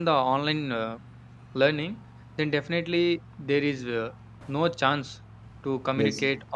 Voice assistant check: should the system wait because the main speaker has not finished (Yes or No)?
Yes